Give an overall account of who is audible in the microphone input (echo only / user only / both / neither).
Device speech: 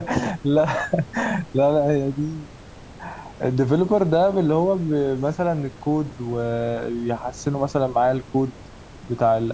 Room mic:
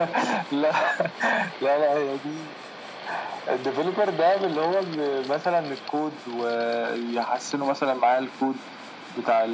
echo only